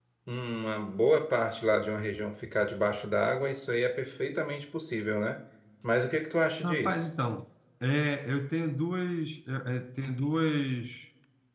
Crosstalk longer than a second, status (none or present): none